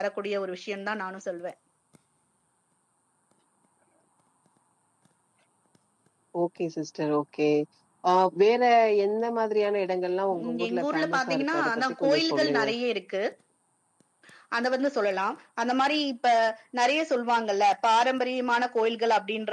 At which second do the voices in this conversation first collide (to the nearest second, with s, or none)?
10 s